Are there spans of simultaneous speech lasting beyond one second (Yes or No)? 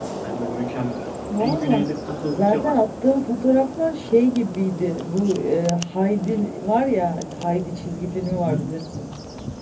No